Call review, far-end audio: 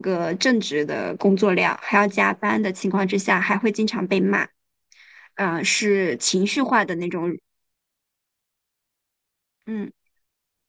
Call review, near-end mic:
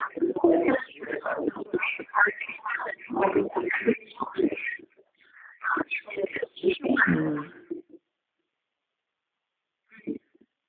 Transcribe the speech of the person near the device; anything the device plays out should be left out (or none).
嗯，